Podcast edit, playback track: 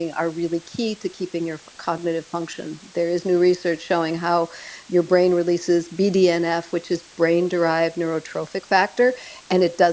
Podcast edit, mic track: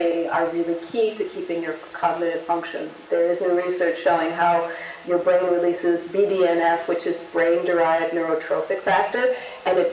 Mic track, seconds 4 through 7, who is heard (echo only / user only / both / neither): echo only